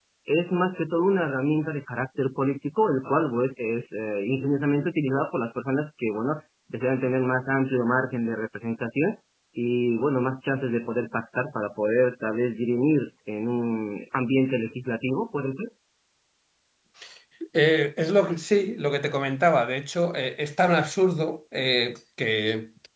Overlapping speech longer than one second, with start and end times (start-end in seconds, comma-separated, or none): none